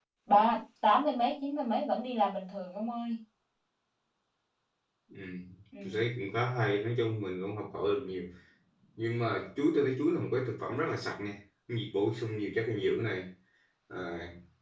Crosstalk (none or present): none